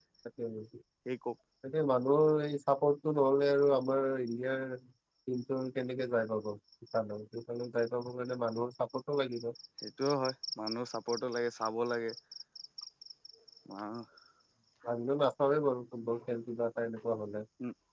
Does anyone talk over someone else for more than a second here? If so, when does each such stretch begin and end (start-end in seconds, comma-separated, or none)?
none